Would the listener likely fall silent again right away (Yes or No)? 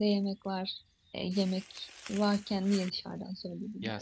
No